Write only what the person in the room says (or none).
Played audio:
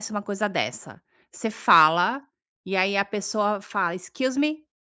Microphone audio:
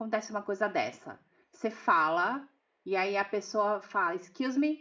none